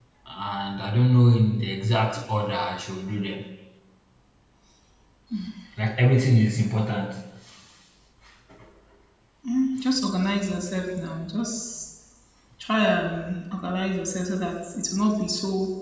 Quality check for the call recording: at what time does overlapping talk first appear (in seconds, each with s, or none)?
none